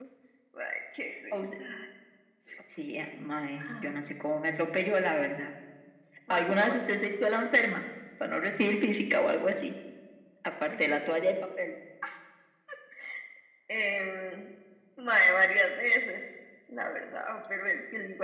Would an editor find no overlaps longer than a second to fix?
Yes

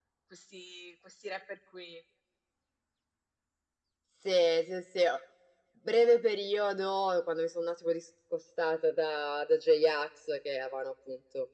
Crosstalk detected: No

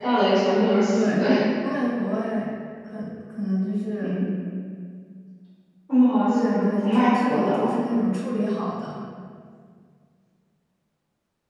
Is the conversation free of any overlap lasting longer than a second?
No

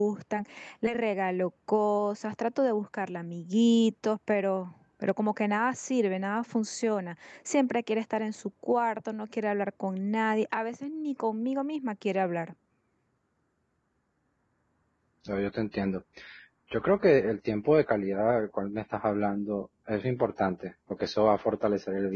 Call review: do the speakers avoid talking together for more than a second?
Yes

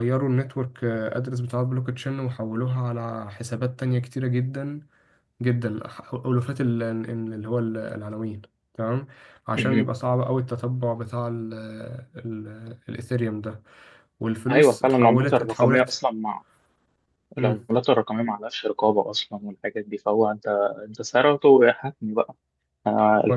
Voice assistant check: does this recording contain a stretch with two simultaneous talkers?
Yes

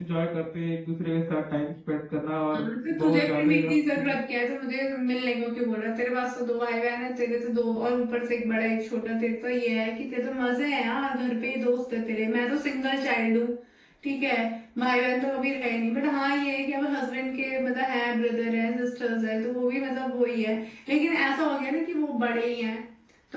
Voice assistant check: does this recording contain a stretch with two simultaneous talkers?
Yes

